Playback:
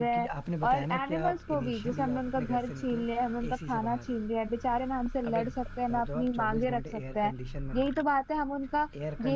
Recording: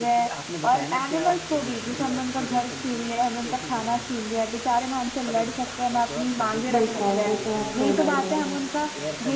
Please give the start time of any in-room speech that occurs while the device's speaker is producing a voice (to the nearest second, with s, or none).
7 s